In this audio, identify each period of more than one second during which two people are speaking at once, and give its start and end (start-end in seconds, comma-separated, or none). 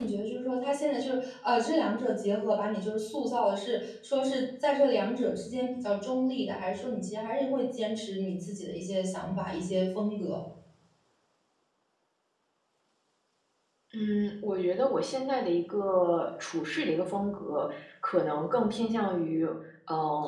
none